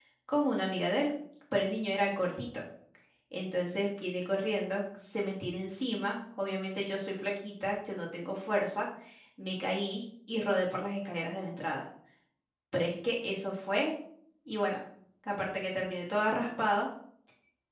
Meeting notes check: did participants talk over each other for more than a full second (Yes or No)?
No